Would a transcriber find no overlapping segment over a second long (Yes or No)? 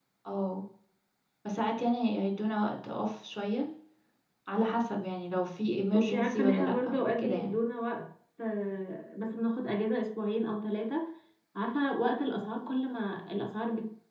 No